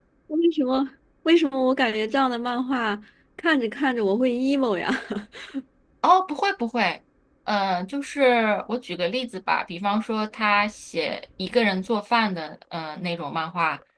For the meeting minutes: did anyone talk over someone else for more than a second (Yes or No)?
No